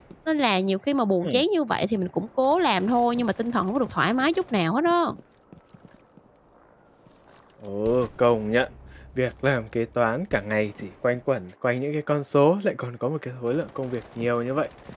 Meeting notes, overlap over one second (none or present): none